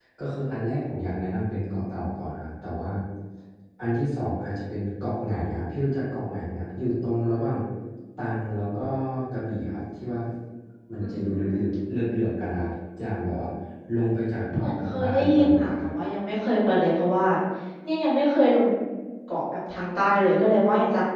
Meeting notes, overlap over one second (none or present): present